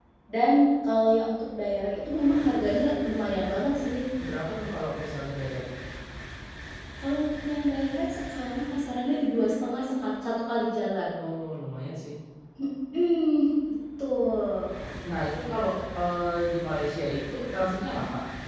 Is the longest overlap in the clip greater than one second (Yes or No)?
No